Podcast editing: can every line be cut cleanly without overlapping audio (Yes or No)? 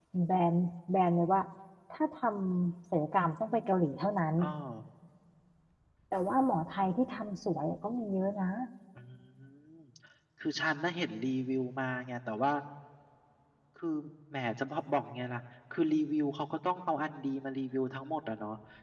Yes